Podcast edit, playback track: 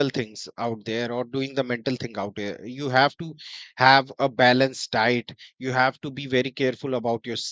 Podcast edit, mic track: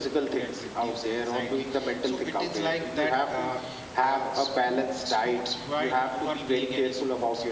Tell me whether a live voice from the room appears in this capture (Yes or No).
Yes